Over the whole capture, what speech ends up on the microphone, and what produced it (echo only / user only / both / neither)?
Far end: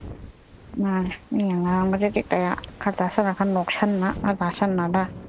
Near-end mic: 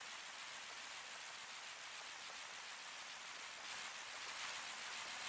neither